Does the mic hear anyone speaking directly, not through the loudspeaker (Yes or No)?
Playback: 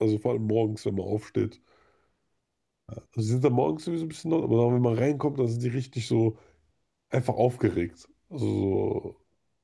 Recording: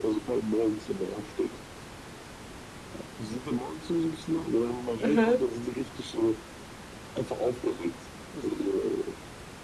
Yes